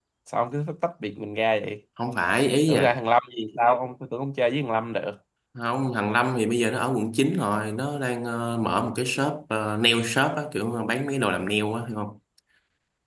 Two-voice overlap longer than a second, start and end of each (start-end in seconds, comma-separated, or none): none